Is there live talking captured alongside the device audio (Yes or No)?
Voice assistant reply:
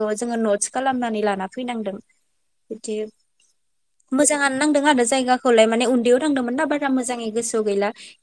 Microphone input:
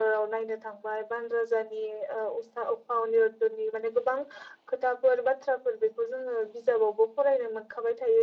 Yes